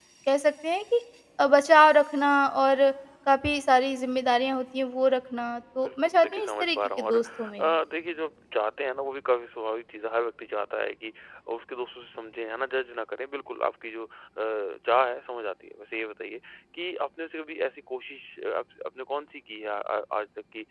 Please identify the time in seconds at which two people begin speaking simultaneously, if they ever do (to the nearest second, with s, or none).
6 s